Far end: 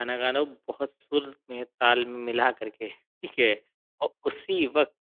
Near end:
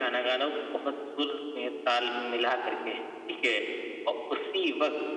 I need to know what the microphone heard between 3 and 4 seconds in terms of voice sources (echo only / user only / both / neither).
echo only